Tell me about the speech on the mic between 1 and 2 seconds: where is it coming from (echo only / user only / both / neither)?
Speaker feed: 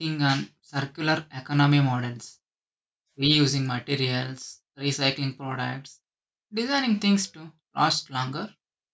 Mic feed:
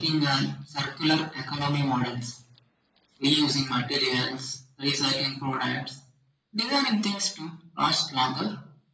echo only